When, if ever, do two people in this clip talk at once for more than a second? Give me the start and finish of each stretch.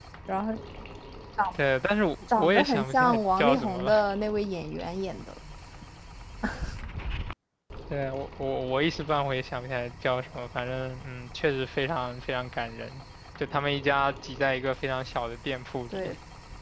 2.4-3.9

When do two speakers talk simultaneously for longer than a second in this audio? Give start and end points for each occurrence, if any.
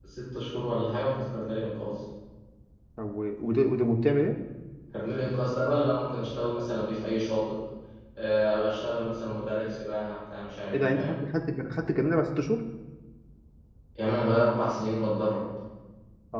none

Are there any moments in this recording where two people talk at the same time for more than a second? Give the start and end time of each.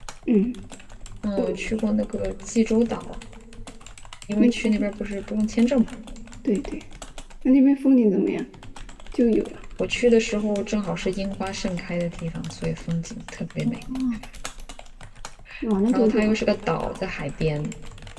none

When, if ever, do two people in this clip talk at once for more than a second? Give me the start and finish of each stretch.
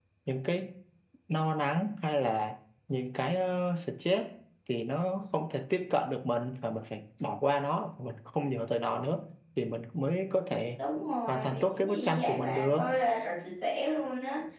11.3-12.8

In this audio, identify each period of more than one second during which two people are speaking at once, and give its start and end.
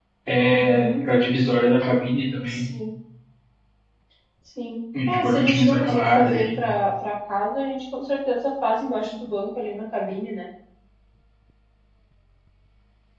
5.1-6.6

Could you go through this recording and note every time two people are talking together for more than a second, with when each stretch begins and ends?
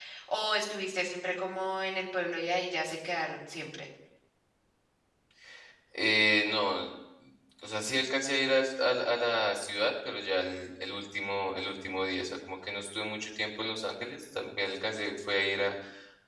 none

